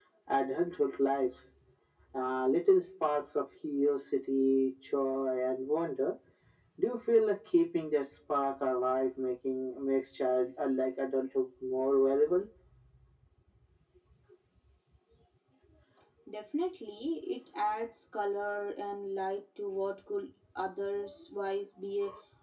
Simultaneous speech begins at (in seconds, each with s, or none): none